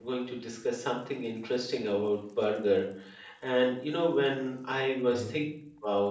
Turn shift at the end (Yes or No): No